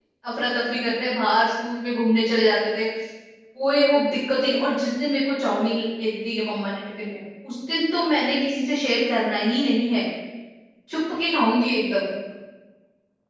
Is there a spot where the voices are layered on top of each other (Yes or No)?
No